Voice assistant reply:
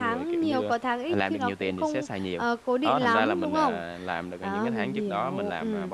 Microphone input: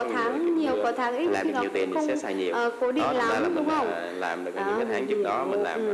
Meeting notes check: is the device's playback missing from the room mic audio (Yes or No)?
No